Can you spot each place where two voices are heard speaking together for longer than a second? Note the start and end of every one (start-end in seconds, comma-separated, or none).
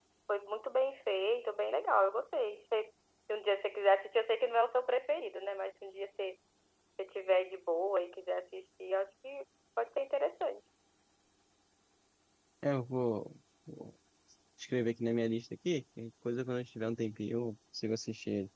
none